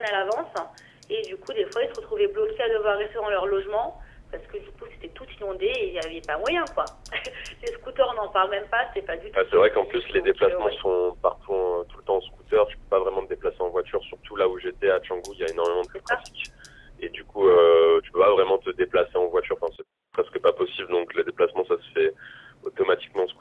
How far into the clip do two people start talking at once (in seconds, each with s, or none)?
9.3 s